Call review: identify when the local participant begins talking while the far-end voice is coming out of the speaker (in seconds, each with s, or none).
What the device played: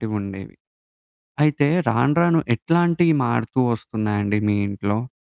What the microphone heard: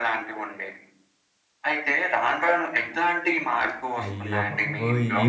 4.0 s